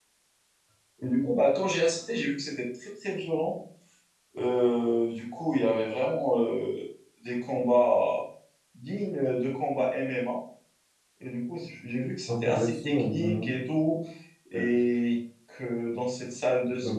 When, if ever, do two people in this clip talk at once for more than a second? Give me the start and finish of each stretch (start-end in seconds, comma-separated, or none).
12.3-13.5